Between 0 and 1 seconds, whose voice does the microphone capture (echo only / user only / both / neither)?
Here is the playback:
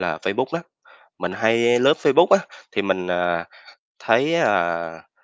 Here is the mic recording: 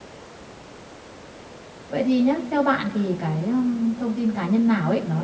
neither